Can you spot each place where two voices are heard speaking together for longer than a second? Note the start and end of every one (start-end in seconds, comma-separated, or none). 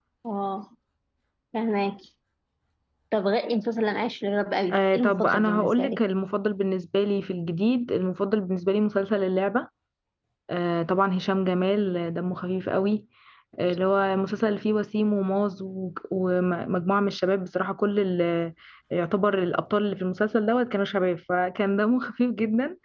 4.7-6.0